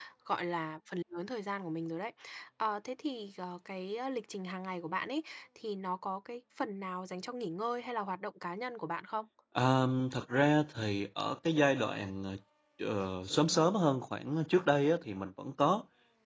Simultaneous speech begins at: none

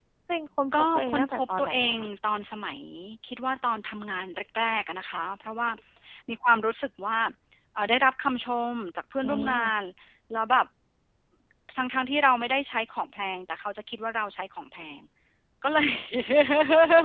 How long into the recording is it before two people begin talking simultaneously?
0.8 s

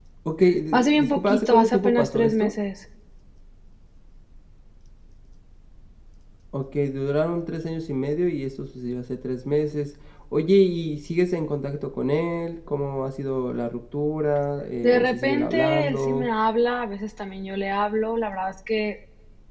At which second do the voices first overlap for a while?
0.7 s

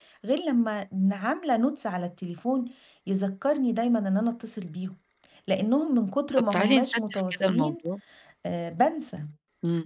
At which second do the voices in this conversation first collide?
6.5 s

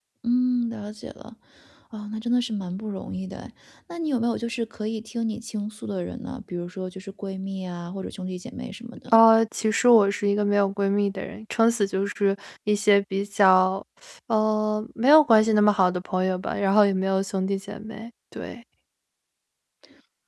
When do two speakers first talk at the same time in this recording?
none

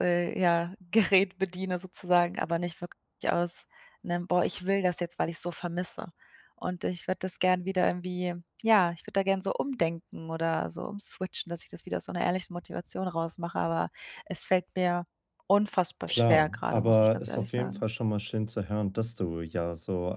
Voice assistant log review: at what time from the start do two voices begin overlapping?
16.1 s

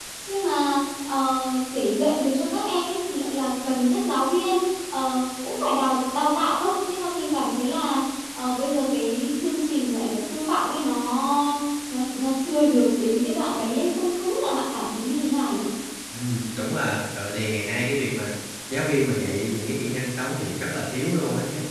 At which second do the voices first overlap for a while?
none

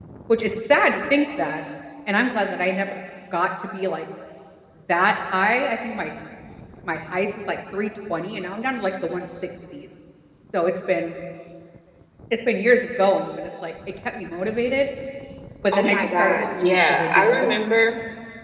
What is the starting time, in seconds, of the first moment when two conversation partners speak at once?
15.7 s

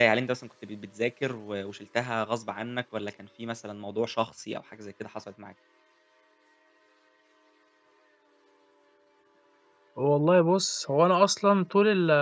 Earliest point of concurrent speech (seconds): none

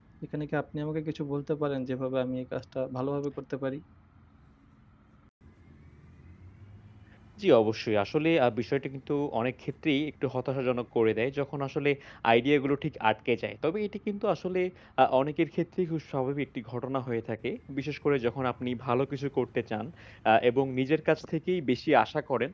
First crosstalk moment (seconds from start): none

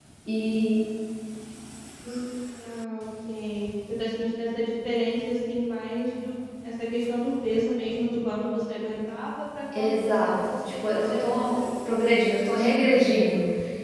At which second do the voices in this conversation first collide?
9.7 s

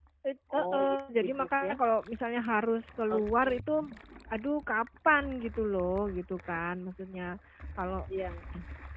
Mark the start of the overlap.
0.5 s

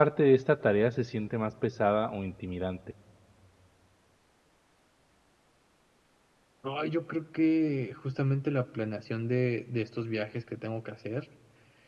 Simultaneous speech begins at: none

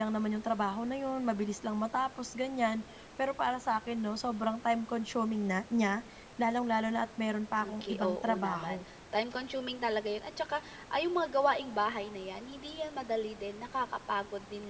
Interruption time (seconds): 7.6 s

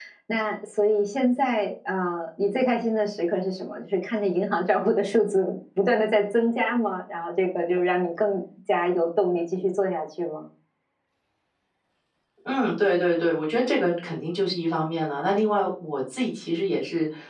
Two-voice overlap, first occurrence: none

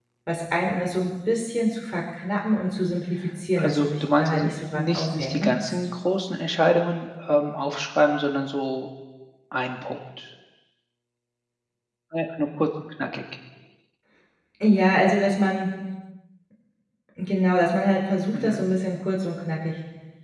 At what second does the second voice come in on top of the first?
3.6 s

